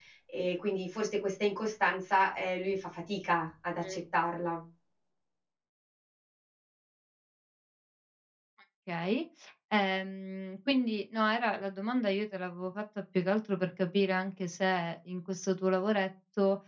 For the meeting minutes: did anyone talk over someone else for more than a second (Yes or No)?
No